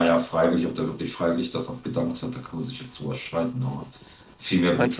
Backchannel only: Yes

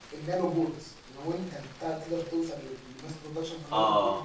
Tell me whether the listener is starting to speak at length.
No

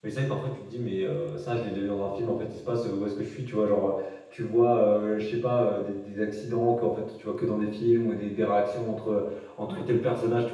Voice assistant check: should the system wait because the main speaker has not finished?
Yes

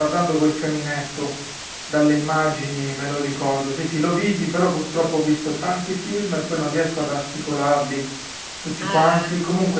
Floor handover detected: No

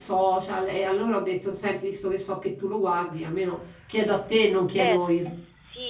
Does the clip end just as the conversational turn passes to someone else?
Yes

